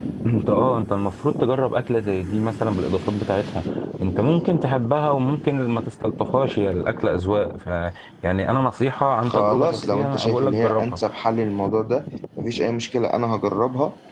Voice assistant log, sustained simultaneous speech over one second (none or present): present